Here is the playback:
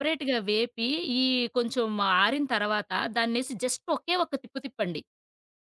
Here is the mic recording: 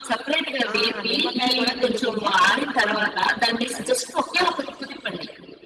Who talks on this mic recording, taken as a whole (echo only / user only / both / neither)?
both